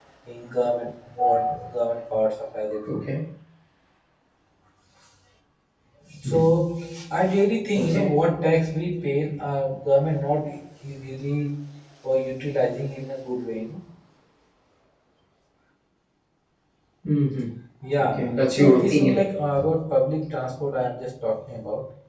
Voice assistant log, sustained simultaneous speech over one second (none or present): present